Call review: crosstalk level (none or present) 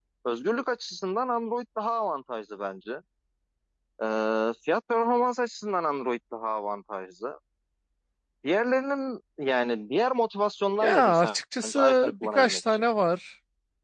present